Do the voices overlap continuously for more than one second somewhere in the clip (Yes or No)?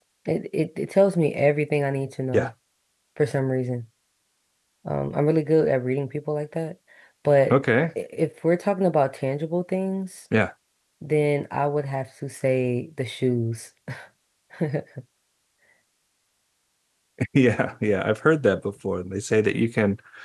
No